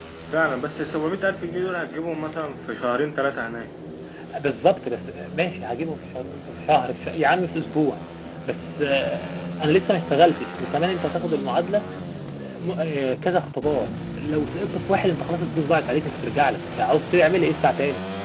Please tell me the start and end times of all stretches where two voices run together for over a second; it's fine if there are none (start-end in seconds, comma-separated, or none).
none